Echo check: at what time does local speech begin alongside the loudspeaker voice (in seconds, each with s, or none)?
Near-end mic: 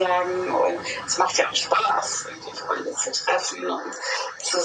none